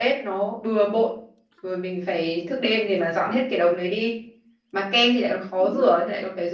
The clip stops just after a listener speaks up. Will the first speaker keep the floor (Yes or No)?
Yes